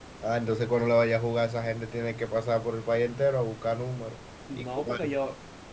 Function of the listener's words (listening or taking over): taking over